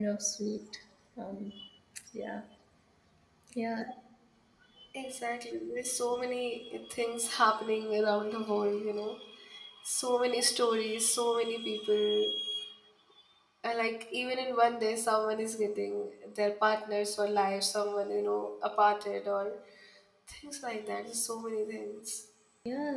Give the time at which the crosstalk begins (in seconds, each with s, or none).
none